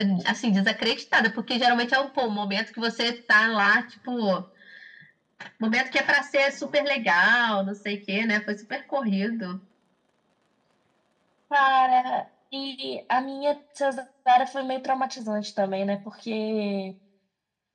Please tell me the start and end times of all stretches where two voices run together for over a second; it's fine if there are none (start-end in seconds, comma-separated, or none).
none